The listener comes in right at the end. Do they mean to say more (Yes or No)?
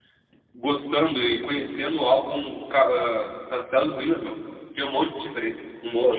Yes